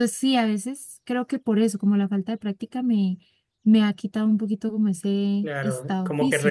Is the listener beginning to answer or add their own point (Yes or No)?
Yes